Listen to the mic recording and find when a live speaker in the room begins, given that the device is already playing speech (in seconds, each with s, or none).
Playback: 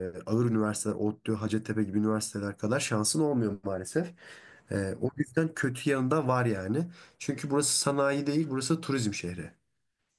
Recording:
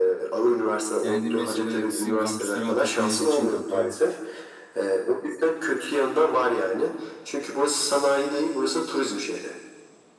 1.0 s